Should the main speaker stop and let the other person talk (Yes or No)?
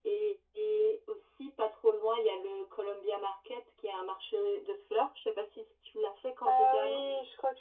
Yes